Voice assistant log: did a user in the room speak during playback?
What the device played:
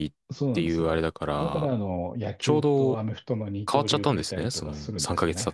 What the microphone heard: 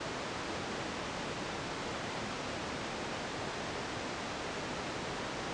No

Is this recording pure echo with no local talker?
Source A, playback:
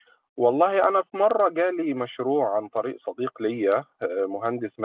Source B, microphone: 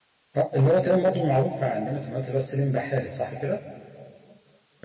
No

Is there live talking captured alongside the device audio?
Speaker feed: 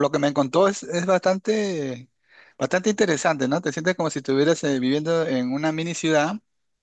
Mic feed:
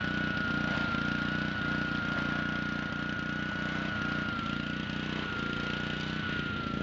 No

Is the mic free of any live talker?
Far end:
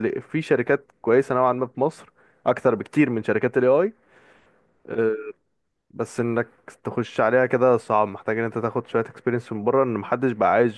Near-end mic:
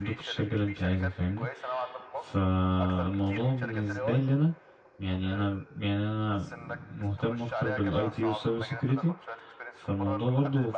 No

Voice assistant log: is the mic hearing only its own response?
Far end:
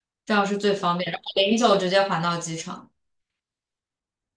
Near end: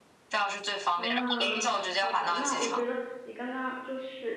No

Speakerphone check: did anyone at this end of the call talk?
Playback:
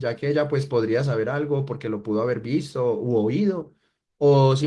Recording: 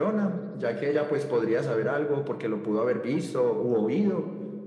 No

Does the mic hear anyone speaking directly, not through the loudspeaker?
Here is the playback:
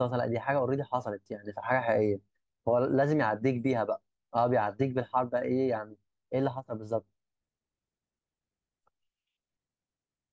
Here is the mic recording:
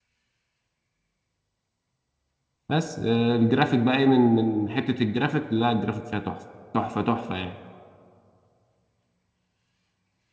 Yes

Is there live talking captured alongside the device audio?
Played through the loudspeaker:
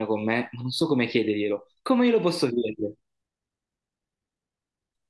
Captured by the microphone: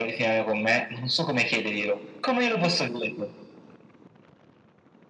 No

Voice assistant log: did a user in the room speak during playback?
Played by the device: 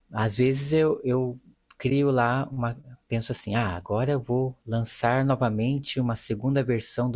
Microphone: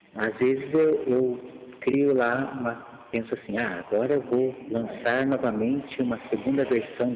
Yes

